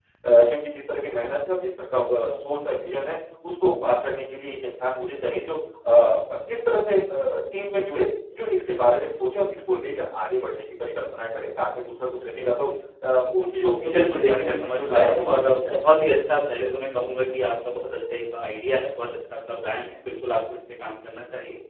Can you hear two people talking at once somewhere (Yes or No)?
Yes